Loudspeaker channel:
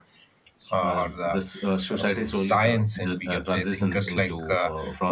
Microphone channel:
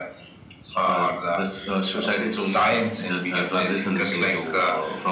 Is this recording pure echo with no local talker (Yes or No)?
Yes